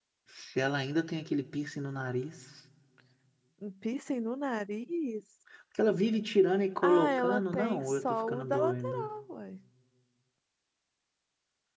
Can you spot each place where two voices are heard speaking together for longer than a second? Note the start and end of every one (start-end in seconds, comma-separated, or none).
6.8-9.1